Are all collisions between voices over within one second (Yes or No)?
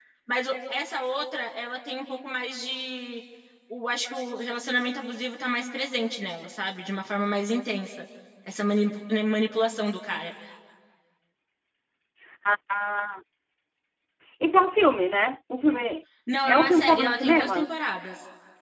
No